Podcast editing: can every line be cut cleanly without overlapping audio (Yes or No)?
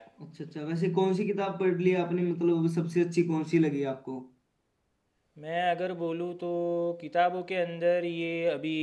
Yes